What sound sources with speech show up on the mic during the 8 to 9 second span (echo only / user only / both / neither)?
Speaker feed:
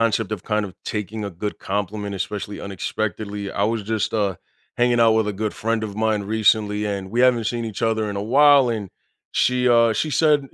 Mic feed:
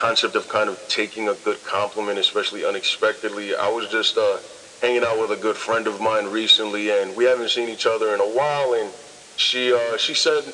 echo only